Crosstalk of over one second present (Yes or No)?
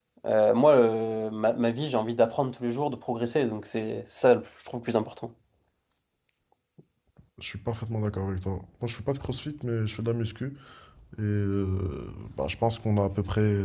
No